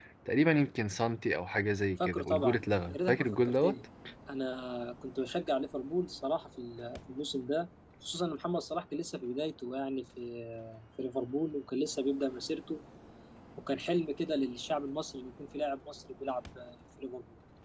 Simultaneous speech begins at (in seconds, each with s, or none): 2.0 s